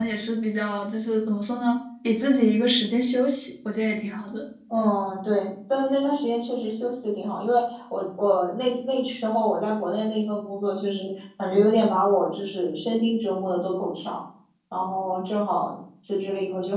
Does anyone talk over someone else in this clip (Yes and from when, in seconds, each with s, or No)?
No